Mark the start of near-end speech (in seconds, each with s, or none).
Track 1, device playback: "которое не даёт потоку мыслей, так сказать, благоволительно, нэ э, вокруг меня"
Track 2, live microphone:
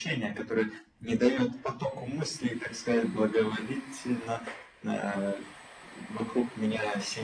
none